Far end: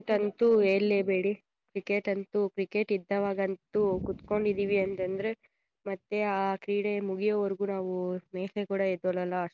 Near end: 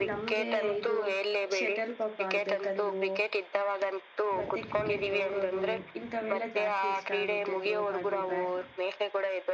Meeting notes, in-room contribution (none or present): present